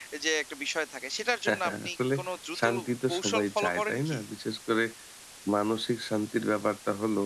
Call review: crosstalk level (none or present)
present